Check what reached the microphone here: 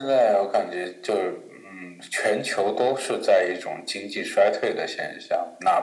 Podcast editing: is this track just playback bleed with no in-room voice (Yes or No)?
Yes